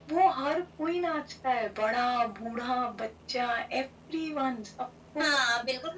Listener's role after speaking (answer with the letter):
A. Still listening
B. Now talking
B